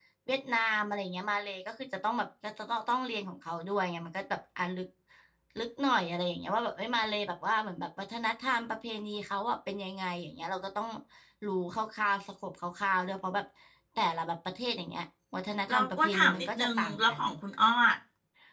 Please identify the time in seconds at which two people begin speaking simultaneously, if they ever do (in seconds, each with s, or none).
15.7 s